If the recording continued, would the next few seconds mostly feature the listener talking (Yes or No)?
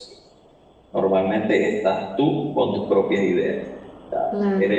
No